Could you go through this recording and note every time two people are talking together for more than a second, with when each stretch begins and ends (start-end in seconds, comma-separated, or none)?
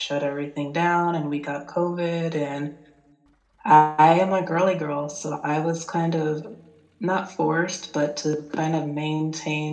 none